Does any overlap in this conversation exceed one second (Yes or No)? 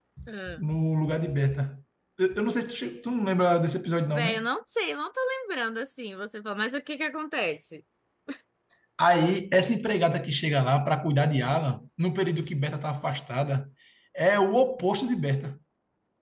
No